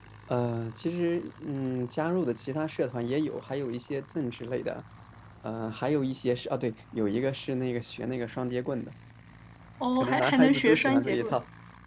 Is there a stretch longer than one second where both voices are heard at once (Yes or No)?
Yes